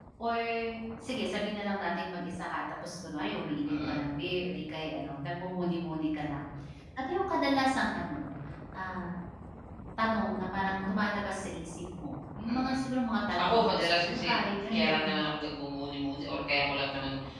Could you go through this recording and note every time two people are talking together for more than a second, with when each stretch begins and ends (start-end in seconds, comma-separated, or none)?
13.3-15.1